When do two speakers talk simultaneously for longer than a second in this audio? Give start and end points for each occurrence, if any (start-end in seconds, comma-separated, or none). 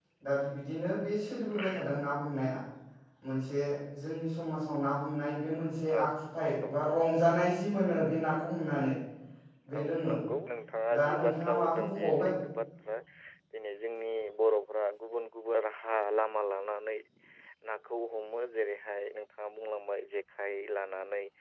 11.0-12.3